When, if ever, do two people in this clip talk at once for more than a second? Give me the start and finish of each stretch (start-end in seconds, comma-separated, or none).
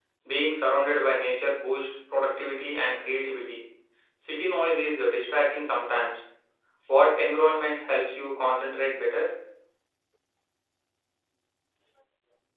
none